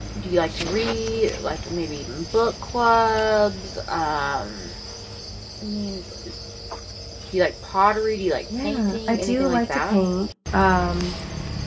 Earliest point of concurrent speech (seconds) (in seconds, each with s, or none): 8.5 s